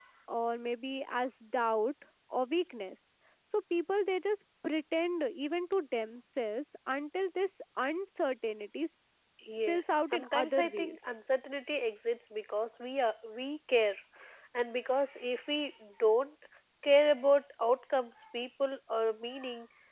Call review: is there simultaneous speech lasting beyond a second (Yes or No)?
Yes